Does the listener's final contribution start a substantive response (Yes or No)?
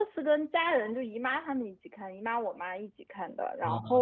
No